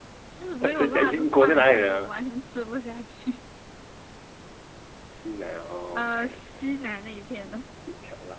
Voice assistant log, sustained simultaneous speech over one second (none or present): present